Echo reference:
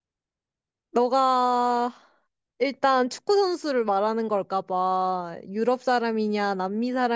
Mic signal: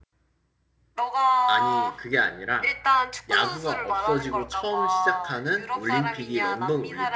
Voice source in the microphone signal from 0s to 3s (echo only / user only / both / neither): both